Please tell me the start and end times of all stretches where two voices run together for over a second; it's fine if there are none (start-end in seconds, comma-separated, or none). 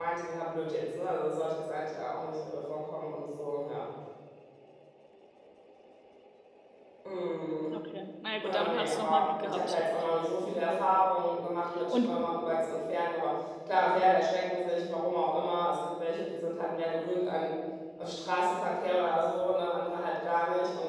8.4-9.8